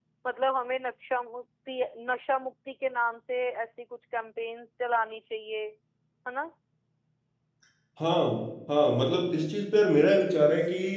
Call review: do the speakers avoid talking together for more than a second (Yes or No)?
Yes